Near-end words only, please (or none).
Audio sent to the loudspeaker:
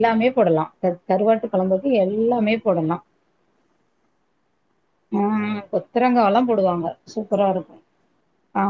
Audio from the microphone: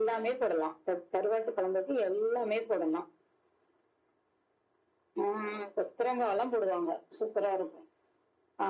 none